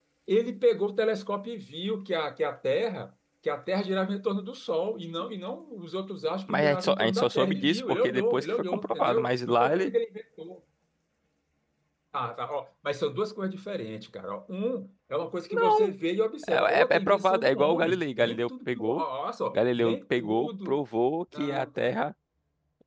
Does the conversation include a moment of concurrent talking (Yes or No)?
Yes